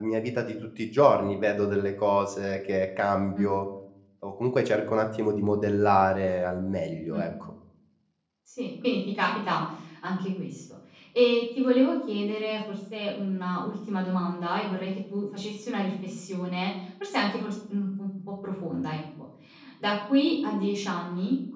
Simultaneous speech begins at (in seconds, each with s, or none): none